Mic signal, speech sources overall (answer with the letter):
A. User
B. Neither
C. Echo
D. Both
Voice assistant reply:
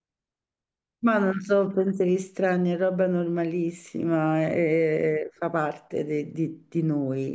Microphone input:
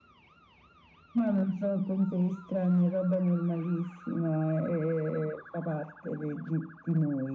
C